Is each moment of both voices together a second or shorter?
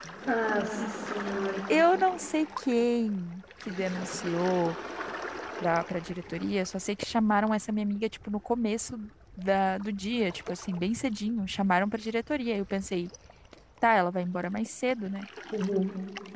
Yes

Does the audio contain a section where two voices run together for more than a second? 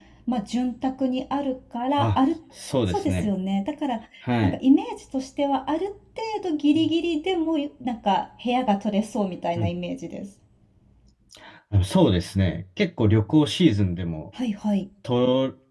No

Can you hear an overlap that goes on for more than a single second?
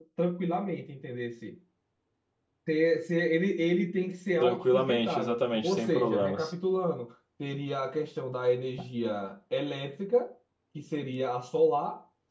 Yes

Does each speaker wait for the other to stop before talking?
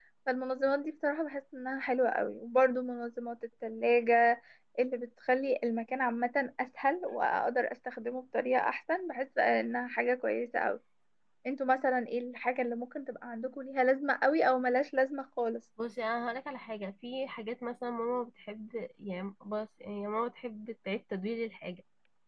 Yes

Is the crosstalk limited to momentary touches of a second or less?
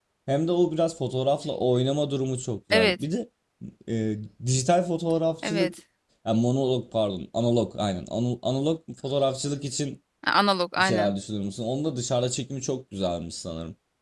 Yes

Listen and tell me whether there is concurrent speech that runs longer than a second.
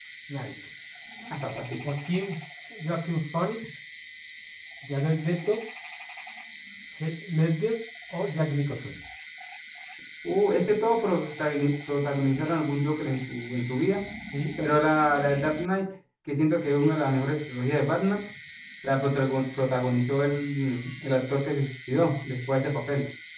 No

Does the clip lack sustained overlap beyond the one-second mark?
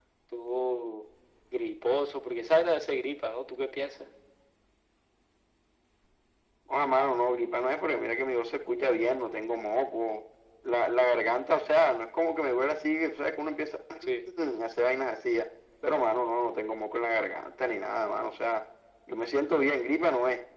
Yes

